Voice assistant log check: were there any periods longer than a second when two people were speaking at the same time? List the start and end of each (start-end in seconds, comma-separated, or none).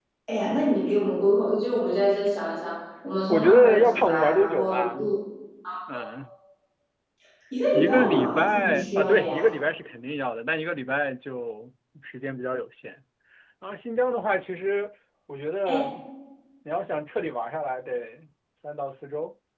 3.3-5.0, 7.7-9.5